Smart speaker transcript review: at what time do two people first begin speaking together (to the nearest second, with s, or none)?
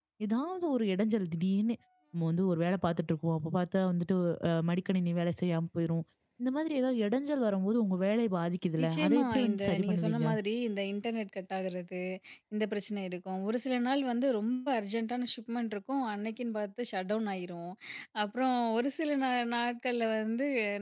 9 s